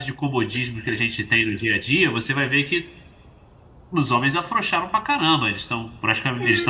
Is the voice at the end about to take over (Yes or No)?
Yes